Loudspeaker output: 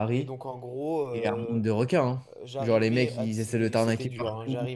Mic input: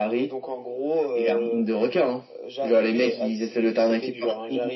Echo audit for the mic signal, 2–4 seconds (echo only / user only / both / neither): echo only